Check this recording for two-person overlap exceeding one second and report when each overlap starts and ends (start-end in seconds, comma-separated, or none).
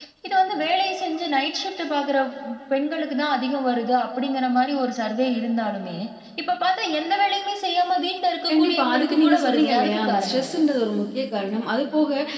8.5-10.6